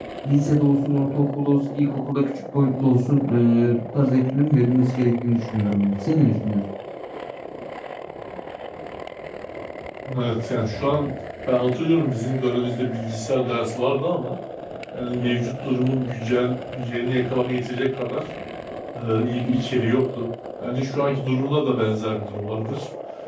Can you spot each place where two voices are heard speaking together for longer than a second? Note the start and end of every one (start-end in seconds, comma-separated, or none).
none